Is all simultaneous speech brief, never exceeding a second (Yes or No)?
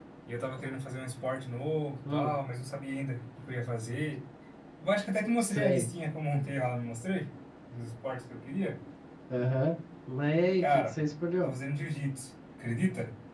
Yes